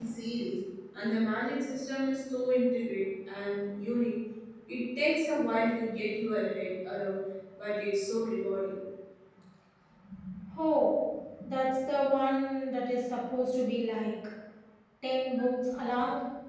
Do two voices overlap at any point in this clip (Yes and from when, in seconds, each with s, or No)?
No